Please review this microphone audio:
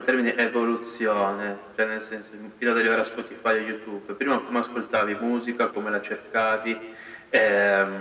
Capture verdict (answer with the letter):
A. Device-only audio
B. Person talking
A